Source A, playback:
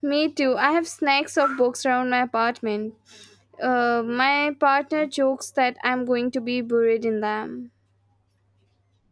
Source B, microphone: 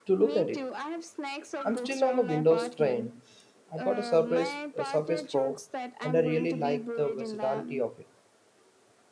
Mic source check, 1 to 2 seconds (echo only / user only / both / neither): both